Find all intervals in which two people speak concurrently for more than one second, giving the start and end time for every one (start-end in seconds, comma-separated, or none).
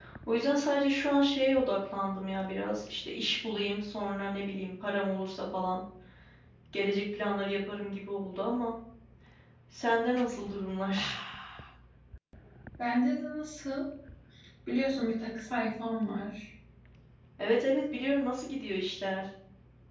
none